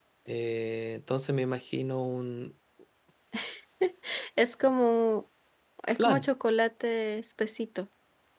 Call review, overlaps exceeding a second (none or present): none